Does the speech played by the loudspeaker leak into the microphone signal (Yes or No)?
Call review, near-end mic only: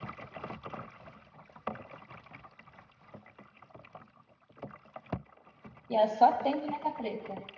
No